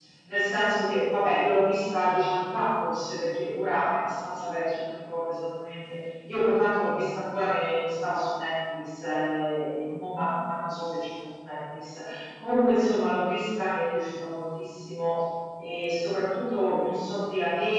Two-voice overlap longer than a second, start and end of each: none

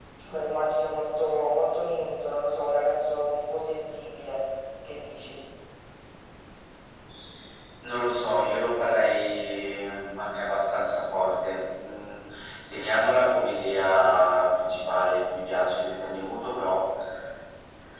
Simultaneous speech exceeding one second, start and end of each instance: none

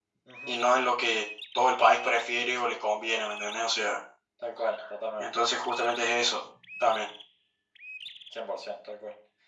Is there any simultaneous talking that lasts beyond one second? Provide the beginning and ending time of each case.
none

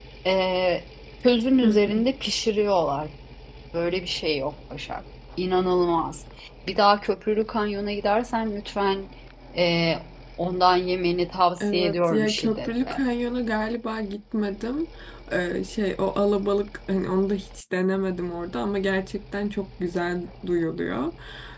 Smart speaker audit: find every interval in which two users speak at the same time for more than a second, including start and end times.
11.6-13.0

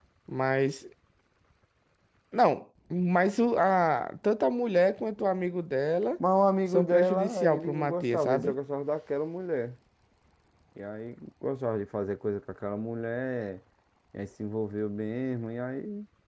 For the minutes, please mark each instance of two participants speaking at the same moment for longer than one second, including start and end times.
6.7-8.5

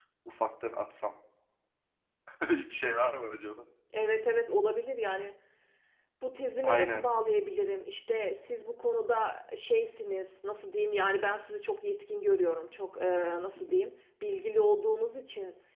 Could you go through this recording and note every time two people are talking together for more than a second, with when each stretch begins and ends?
none

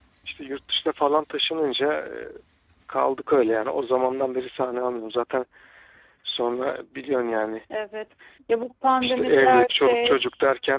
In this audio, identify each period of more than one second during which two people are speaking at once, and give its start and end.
9.0-10.2

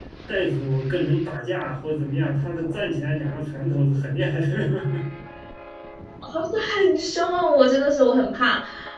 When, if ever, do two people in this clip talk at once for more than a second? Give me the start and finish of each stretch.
none

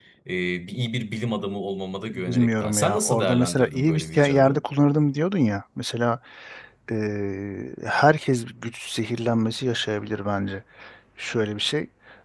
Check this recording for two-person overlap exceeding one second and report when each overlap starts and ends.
2.1-4.6

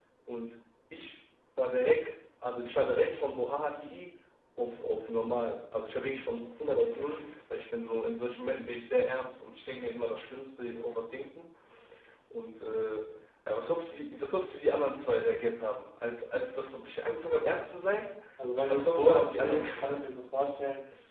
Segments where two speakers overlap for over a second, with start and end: 18.7-20.1

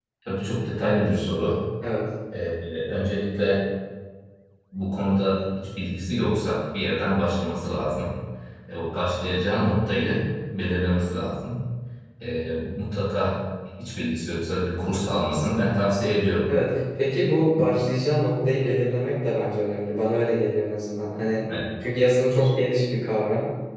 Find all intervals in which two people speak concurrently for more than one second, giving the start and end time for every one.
none

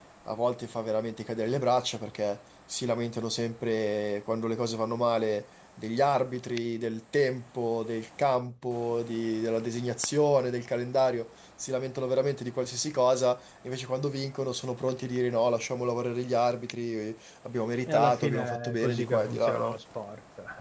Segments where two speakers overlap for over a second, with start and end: 17.9-19.8

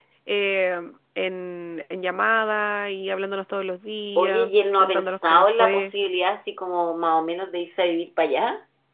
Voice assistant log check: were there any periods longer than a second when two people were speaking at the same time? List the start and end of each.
4.2-5.9

